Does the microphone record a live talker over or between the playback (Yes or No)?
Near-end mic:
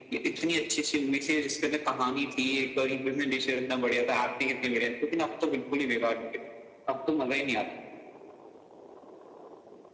No